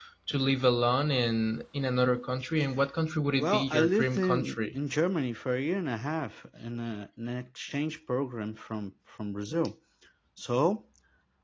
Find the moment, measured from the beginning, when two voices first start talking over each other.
3.4 s

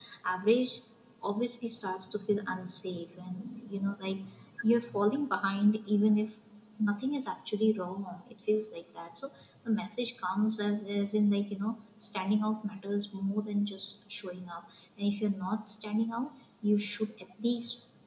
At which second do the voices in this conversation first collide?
none

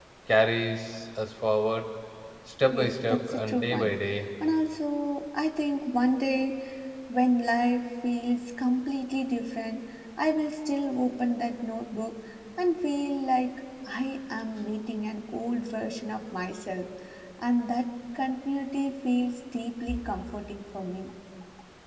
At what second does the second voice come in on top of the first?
2.7 s

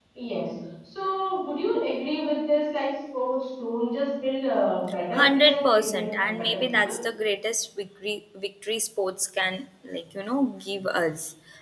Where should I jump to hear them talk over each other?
5.1 s

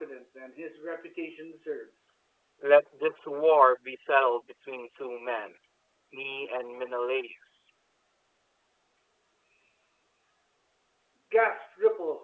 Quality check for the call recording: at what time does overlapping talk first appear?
none

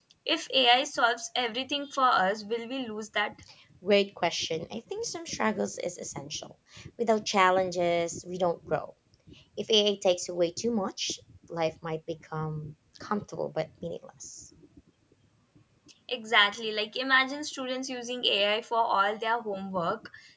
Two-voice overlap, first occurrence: none

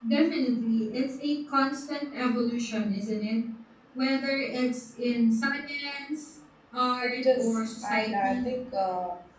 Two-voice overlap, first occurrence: 7.0 s

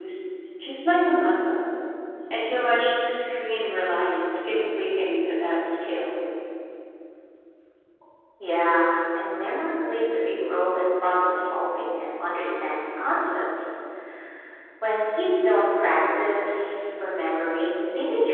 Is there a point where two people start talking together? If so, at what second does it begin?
none

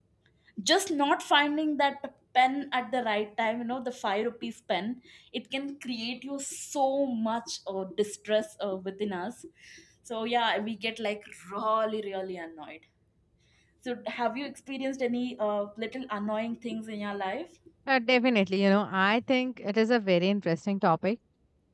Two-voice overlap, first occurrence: none

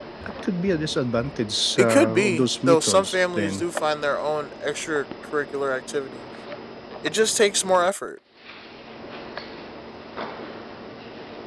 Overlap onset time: 1.8 s

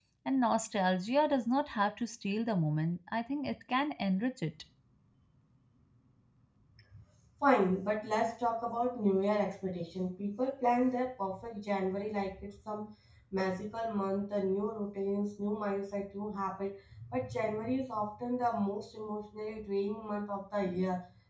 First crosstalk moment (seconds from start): none

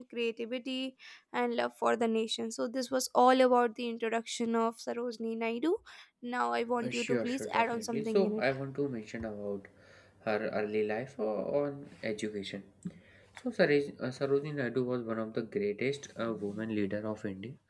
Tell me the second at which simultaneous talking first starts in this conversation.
6.8 s

